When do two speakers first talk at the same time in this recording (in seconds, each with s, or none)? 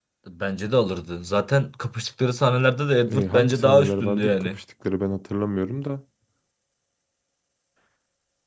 3.0 s